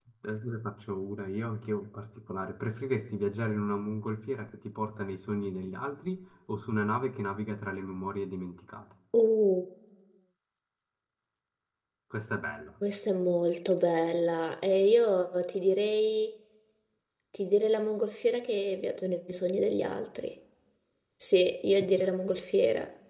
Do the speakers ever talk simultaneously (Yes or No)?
No